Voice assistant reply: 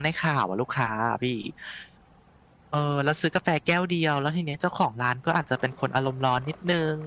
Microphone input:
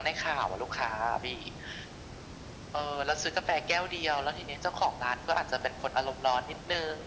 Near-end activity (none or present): none